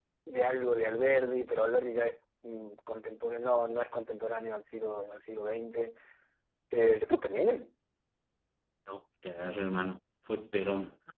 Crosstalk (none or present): none